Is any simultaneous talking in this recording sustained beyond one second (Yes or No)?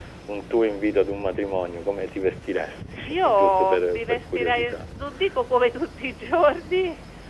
Yes